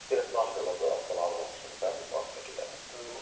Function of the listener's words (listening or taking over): taking over